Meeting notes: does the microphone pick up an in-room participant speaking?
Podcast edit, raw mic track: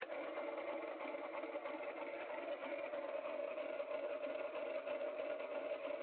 No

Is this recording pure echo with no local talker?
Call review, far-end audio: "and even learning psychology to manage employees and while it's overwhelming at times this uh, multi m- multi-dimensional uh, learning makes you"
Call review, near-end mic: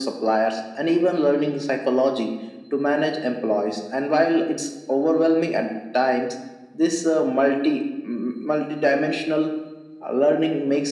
Yes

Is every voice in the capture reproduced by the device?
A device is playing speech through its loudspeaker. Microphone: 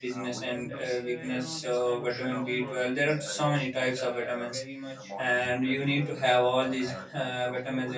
No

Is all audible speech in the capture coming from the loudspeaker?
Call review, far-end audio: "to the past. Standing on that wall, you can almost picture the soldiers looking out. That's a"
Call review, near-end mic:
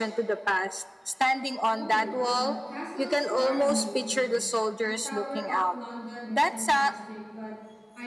No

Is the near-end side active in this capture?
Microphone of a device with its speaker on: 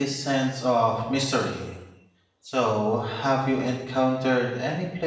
Yes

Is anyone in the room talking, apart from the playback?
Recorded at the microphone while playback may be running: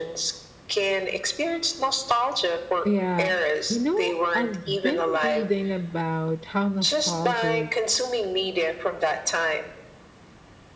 Yes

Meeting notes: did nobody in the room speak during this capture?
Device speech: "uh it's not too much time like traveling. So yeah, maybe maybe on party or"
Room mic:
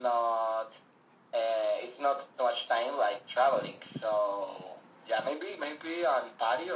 Yes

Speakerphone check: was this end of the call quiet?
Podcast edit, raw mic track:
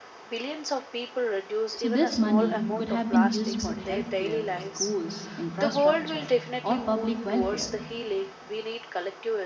No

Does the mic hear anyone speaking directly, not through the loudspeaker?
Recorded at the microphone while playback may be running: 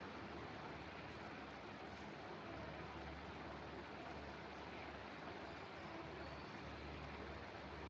No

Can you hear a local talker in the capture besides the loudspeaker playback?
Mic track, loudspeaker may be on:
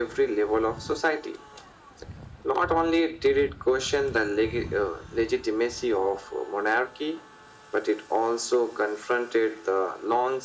No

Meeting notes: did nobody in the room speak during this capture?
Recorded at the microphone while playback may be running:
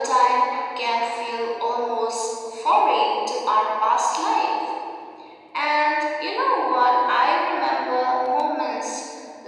Yes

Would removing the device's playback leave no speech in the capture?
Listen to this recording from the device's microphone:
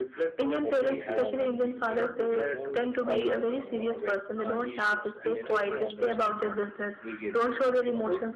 No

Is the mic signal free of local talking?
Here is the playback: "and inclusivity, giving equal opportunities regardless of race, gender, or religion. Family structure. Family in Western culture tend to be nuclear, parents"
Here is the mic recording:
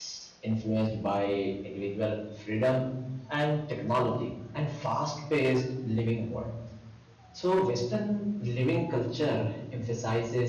No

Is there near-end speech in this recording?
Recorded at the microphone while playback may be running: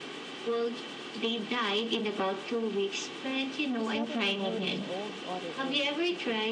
Yes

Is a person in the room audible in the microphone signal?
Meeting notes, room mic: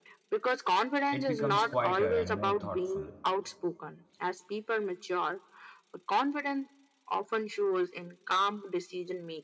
Yes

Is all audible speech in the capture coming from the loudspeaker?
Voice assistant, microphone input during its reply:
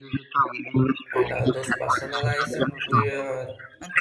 No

